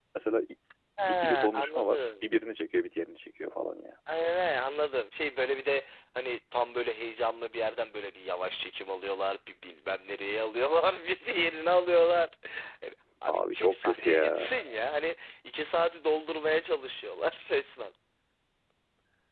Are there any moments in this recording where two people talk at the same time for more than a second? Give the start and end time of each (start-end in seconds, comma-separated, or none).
1.1-2.3, 13.3-14.6